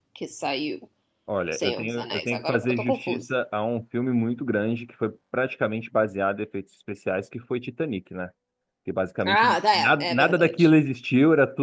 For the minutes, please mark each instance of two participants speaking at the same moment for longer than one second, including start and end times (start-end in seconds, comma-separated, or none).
1.5-3.4, 9.3-10.7